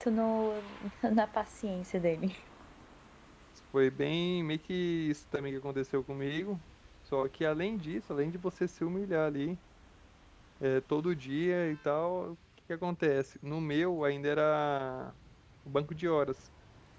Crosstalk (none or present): none